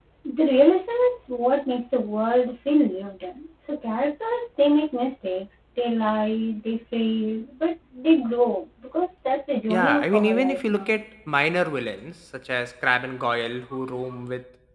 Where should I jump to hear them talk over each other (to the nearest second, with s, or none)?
10 s